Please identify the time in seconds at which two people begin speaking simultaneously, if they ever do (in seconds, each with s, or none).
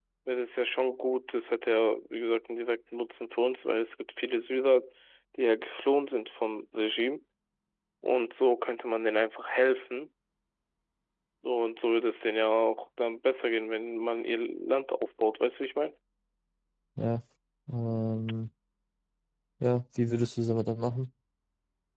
none